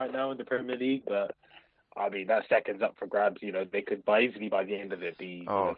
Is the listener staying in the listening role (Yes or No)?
No